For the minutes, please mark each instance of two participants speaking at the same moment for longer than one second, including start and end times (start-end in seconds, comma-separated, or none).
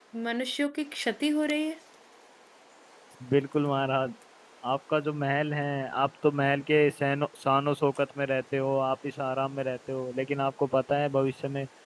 none